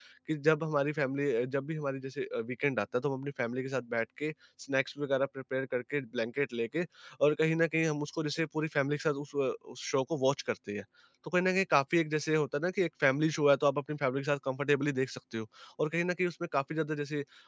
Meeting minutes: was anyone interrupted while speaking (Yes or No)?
No